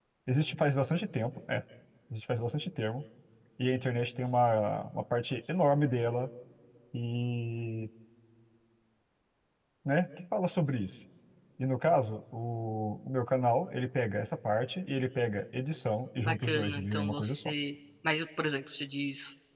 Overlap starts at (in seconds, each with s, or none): 16.2 s